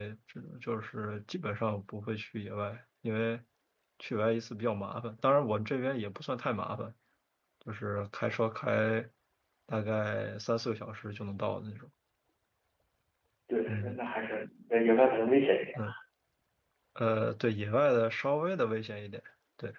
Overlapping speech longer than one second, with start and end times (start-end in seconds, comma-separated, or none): none